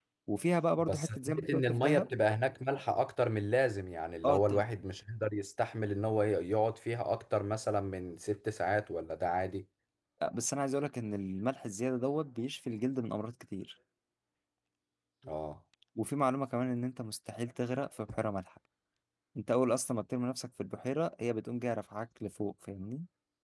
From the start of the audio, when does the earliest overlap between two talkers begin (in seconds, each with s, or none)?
0.8 s